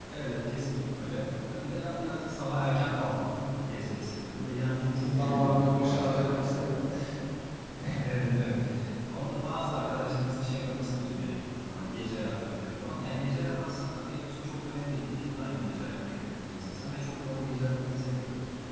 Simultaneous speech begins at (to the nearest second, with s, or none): 5 s